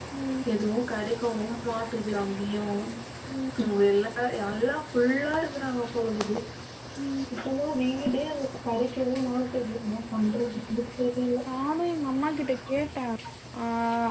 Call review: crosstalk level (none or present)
none